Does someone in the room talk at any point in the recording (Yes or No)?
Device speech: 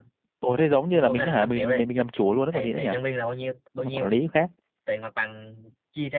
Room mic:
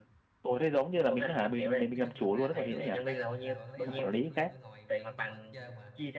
Yes